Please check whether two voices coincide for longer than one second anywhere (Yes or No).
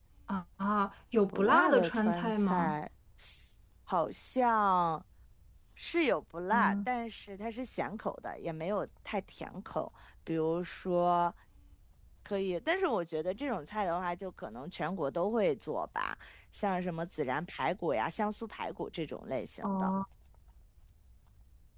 Yes